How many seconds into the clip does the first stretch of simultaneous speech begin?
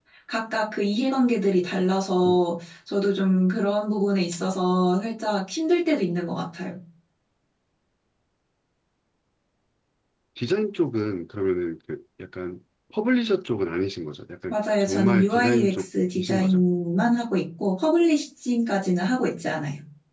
14.5 s

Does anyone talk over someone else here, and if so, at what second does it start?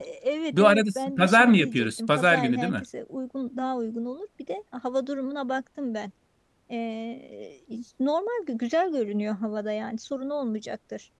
0.5 s

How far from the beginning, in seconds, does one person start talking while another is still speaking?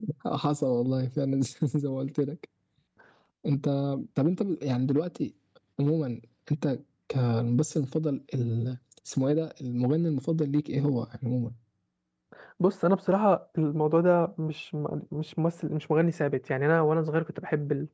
none

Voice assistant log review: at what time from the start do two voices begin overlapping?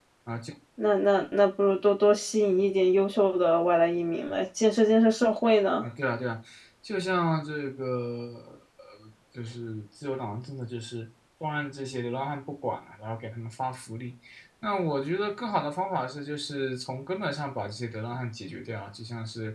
none

